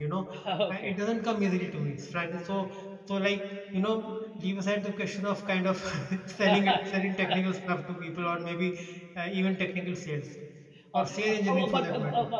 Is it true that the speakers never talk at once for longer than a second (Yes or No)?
No